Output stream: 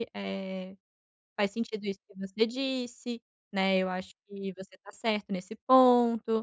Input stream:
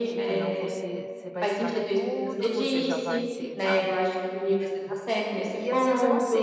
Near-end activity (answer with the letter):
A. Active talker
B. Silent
A